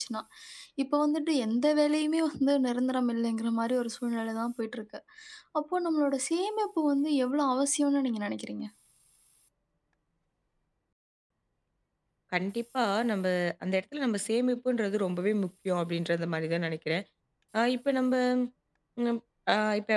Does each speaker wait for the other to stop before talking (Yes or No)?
Yes